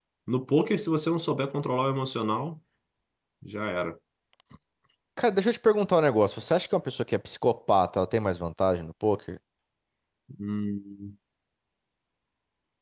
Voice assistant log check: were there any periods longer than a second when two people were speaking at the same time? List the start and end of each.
none

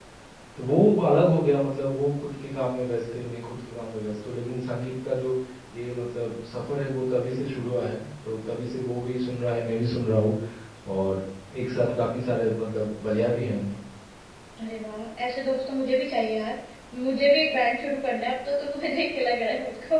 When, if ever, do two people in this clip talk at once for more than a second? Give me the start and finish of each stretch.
none

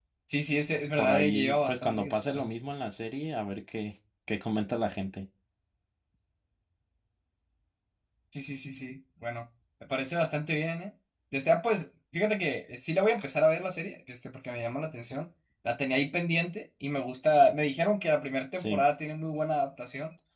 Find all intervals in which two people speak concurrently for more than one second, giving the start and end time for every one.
1.0-2.5

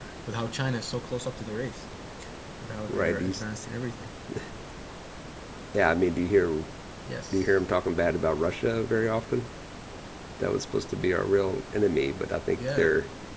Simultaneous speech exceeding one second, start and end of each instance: none

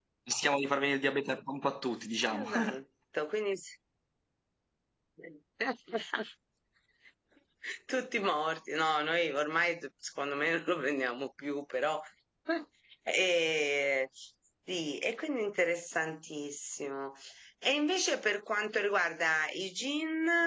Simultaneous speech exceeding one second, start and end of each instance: none

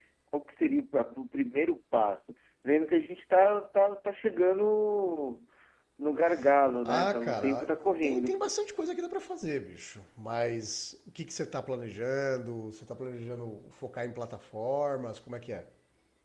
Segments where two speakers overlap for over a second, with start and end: 6.8-8.5

